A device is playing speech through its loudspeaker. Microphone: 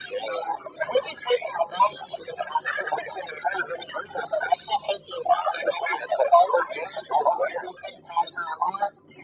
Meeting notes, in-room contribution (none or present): none